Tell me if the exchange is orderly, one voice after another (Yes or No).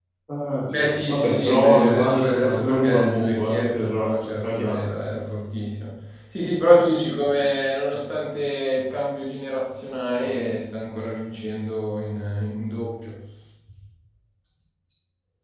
No